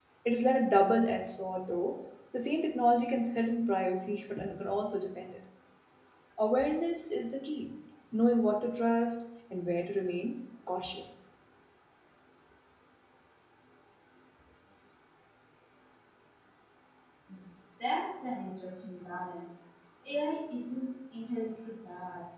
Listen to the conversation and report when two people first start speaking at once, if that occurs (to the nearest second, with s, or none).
none